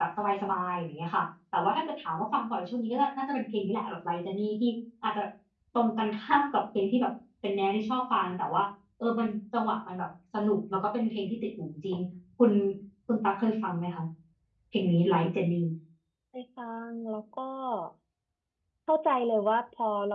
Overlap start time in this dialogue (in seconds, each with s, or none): none